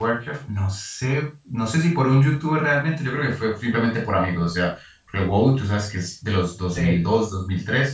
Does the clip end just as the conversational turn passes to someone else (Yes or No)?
No